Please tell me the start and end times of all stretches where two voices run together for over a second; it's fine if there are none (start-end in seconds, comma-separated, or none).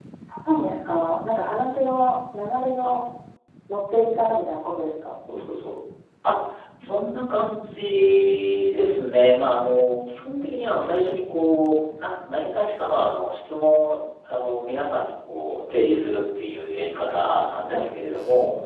none